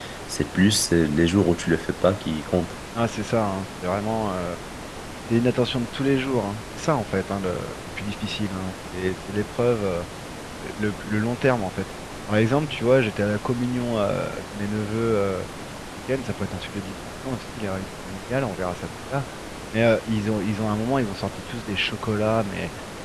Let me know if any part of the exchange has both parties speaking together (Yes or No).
No